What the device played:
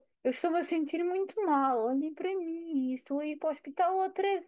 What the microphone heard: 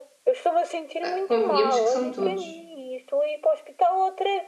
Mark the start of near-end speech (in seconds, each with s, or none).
1.0 s